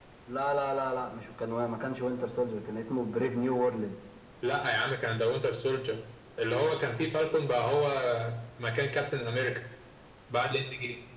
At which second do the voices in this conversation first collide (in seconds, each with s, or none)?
none